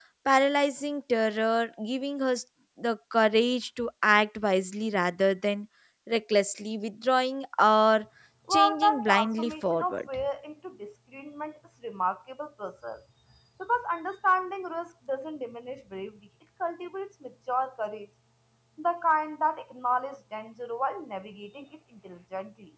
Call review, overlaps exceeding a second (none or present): present